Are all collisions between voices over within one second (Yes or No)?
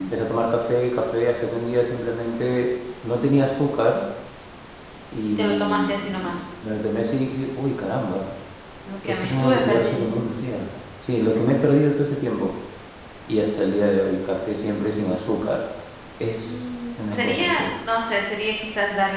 No